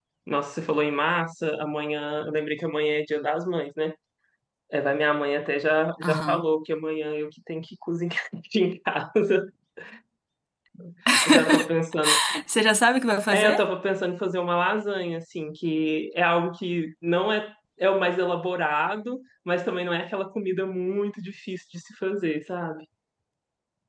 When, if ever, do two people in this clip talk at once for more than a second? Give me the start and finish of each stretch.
none

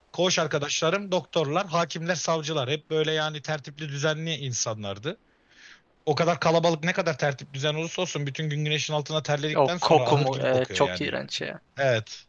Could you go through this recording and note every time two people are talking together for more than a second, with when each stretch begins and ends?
9.6-11.1

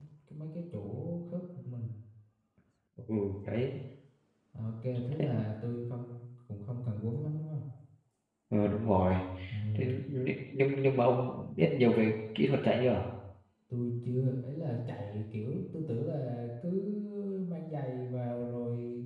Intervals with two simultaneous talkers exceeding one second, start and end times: none

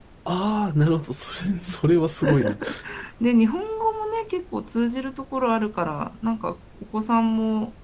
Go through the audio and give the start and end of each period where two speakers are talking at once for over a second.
none

